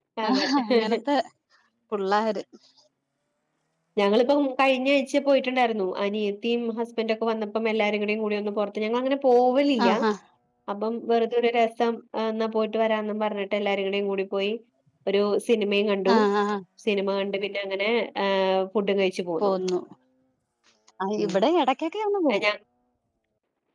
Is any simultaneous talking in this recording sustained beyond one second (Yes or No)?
No